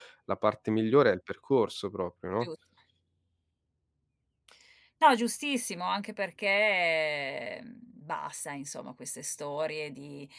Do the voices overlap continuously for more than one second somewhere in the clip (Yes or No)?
No